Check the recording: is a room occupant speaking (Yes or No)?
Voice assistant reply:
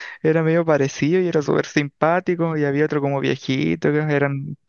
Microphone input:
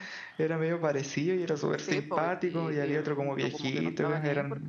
Yes